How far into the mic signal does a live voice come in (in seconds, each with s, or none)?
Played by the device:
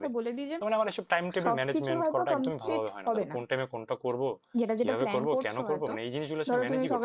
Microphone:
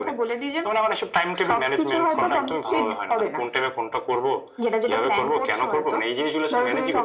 2.1 s